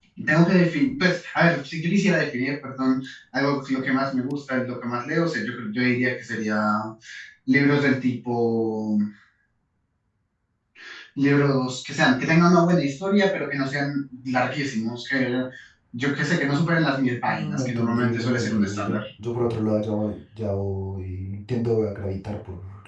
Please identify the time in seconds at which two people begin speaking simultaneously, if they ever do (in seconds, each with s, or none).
17.3 s